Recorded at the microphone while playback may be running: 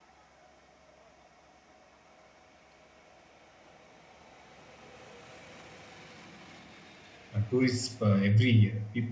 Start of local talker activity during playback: 7.3 s

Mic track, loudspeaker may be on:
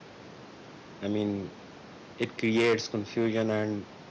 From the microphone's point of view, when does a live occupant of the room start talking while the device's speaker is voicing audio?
1.0 s

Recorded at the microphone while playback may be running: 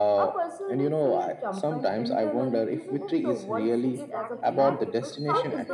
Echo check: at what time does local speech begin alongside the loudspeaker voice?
3.8 s

